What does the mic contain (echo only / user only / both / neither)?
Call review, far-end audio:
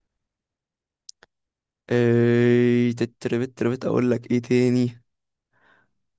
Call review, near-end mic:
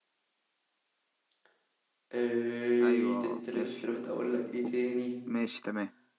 both